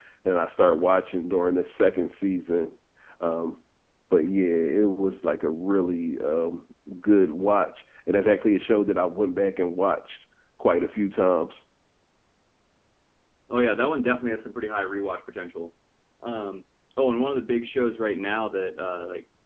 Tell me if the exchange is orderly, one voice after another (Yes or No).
Yes